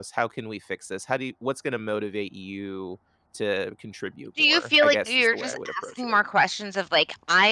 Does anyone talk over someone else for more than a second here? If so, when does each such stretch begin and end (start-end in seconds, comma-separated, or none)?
4.4-6.2